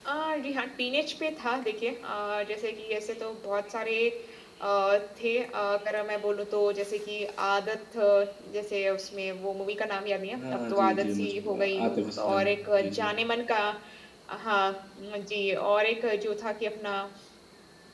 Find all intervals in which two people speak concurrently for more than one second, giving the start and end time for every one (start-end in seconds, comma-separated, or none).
10.4-13.1